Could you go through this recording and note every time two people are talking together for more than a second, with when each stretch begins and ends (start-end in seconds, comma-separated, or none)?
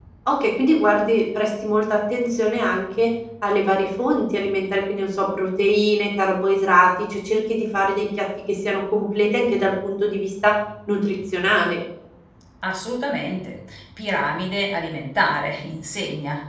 none